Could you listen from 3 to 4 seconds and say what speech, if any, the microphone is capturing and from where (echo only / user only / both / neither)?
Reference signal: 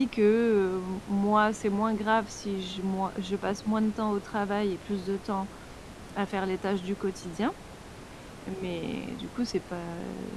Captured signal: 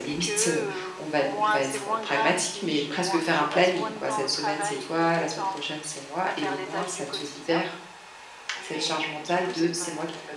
both